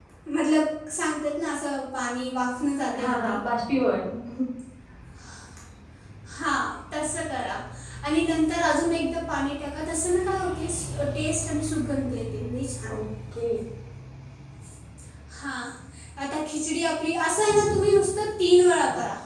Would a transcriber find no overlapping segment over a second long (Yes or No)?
Yes